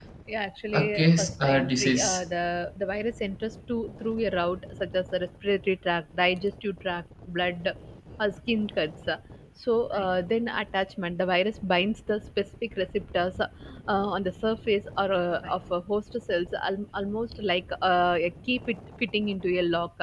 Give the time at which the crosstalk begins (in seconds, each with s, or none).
0.7 s